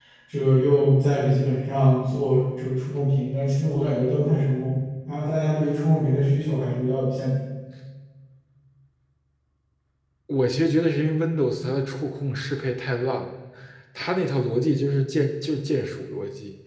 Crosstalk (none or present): none